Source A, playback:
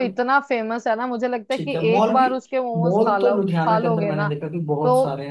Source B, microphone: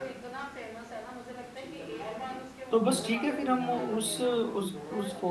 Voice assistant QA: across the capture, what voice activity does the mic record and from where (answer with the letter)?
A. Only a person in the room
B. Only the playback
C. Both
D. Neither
C